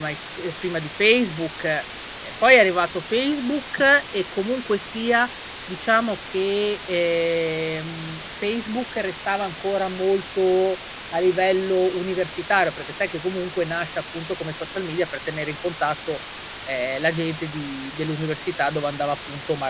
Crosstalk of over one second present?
No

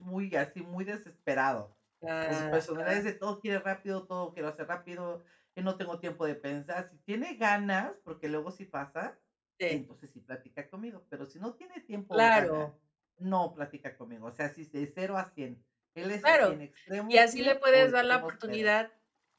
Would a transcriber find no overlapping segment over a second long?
No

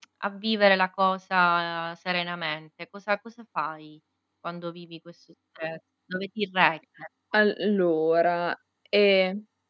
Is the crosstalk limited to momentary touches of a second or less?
Yes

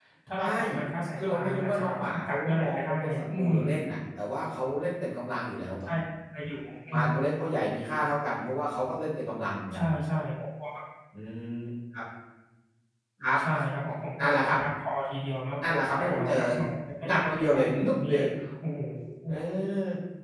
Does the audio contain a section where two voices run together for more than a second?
Yes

